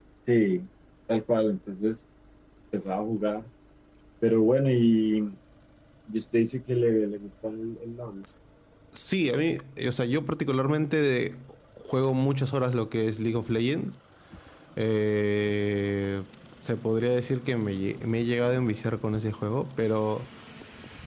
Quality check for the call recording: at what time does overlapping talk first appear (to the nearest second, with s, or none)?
none